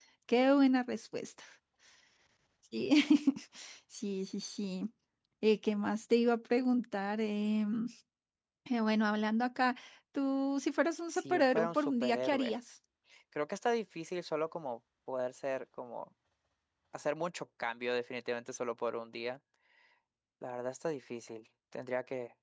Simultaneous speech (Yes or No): Yes